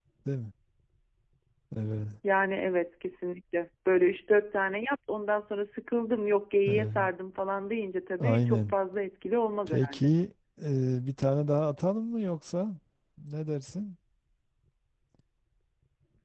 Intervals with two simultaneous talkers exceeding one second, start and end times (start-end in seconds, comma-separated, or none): none